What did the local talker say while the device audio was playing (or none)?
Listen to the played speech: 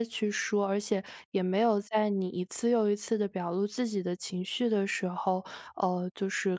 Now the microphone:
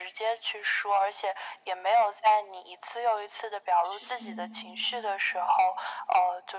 是的呢。